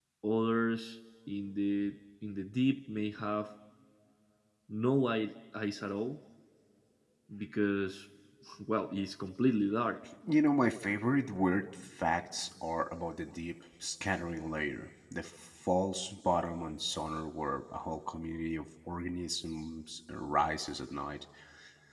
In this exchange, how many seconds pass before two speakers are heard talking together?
none

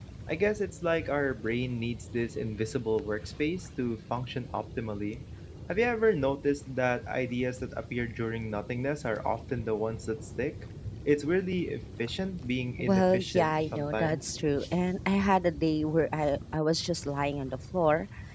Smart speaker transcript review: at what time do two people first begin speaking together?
13 s

